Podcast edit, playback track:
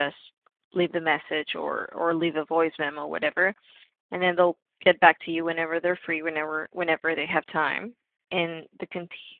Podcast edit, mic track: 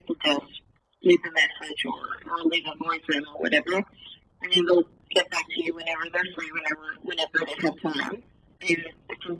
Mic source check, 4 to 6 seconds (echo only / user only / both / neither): echo only